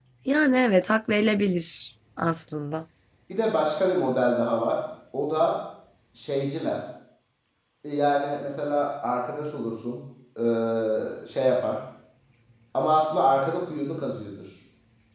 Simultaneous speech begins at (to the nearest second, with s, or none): none